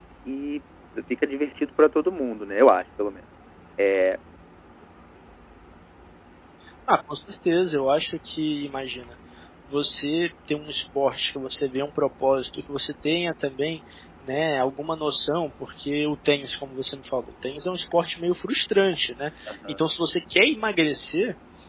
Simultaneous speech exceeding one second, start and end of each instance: none

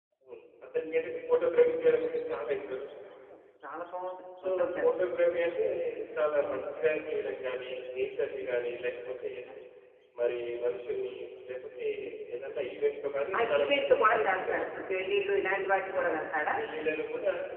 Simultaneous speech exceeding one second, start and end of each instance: 13.4-14.7

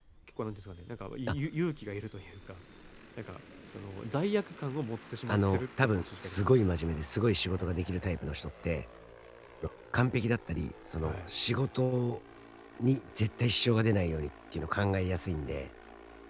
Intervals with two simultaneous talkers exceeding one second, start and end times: 5.3-6.6

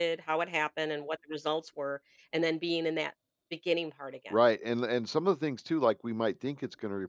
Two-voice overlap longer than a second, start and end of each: none

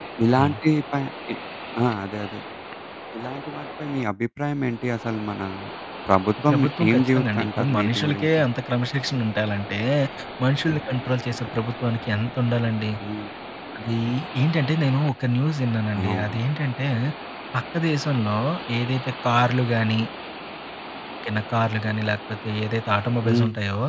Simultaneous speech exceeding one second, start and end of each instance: 6.5-8.3

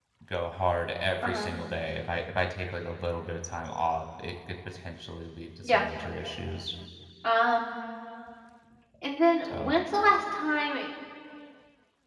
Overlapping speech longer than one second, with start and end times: none

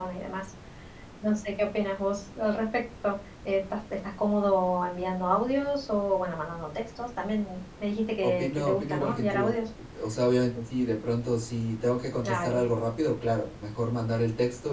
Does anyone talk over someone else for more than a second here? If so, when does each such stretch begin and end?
8.2-9.6

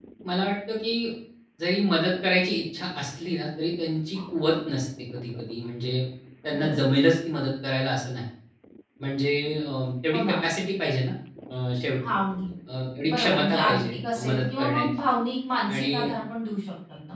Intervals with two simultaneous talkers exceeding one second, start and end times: 13.1-14.9

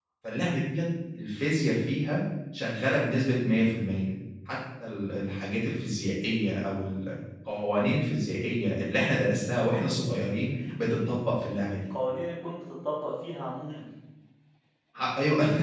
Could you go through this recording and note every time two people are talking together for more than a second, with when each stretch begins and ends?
none

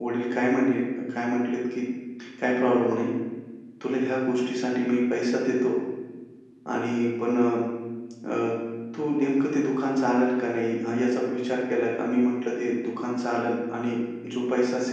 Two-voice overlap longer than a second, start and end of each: none

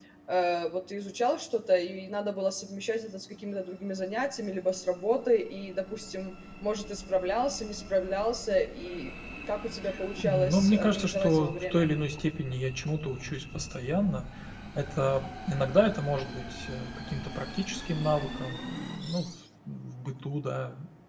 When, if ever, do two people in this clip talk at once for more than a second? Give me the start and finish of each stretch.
10.2-11.9

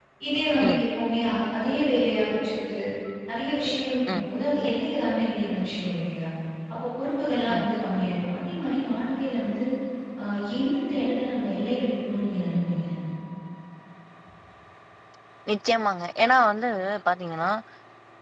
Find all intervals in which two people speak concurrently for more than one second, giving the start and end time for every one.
none

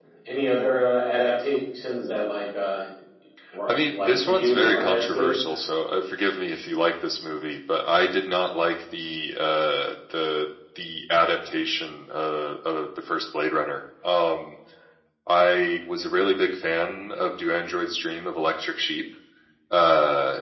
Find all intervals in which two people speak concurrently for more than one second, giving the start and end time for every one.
3.7-5.4

